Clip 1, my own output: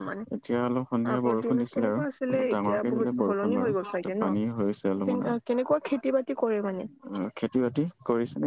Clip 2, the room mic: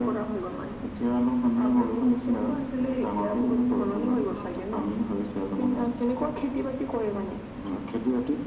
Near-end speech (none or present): none